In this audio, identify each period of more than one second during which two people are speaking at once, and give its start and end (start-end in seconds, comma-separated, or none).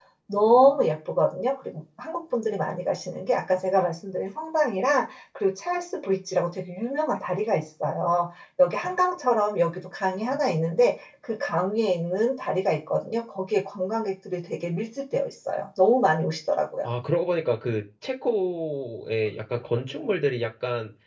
none